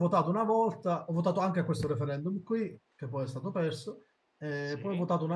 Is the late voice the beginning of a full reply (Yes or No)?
No